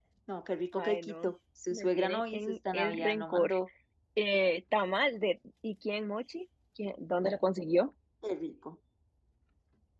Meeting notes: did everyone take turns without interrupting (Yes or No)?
No